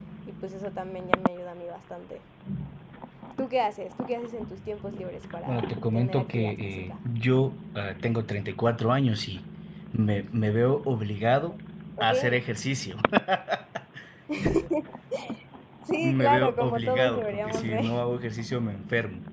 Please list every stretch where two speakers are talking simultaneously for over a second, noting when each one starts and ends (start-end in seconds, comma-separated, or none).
5.5-7.0, 16.0-17.9